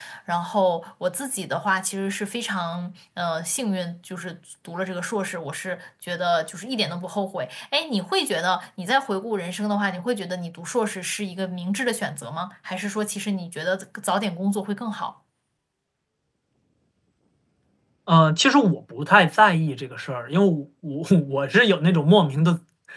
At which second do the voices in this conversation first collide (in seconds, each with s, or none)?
none